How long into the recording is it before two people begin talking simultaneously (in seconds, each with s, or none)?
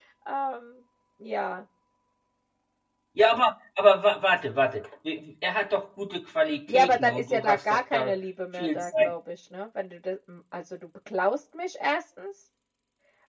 6.7 s